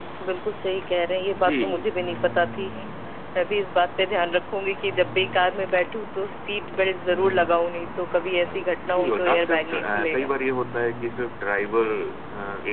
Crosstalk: present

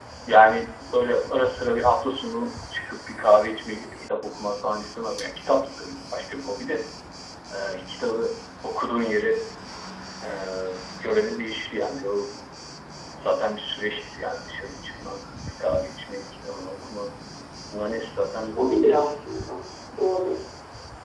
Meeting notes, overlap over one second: none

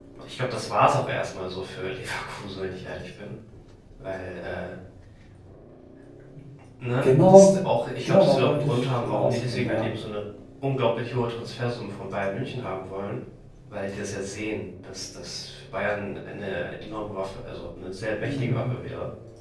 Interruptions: present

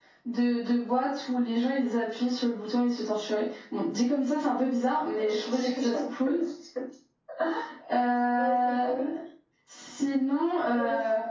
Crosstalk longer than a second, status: present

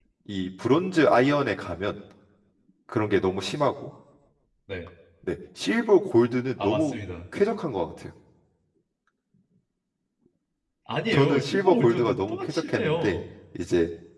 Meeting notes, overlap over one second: present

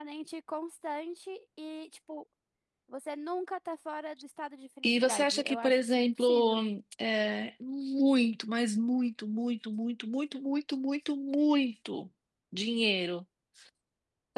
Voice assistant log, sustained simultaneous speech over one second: present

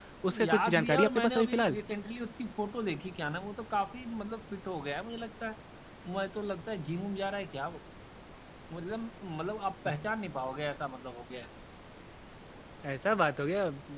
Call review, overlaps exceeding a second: present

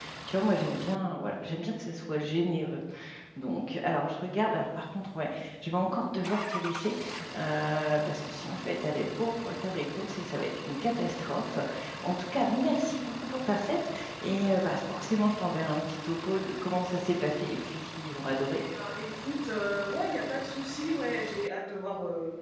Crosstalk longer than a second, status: none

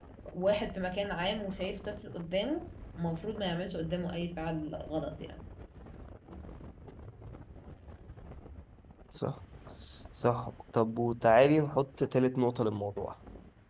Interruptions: none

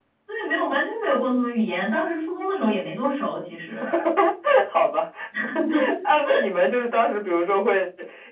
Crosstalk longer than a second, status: none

